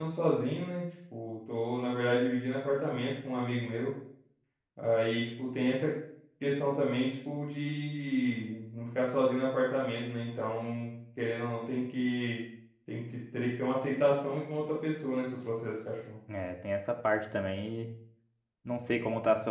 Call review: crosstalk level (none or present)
none